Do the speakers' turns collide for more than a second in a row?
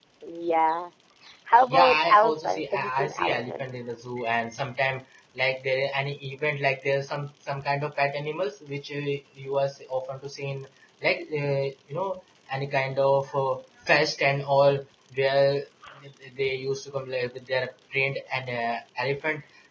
Yes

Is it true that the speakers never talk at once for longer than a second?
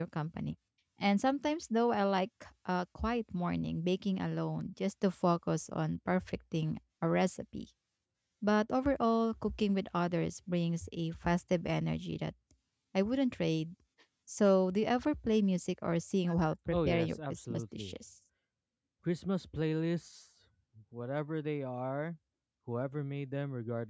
No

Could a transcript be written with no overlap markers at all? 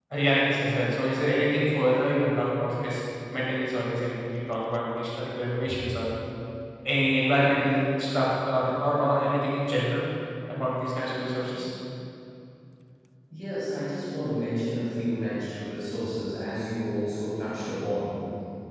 Yes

